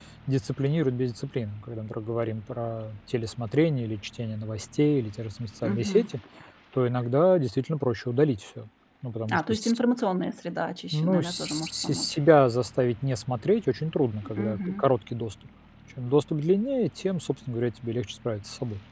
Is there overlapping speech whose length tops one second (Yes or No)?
Yes